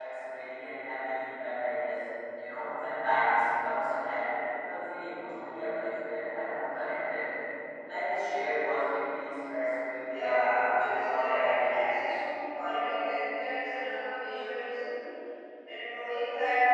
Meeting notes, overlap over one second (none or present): present